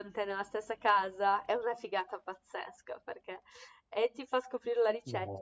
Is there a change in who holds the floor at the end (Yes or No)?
No